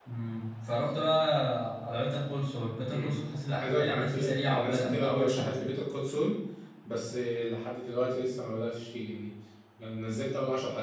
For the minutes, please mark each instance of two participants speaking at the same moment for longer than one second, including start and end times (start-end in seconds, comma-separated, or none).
3.6-5.6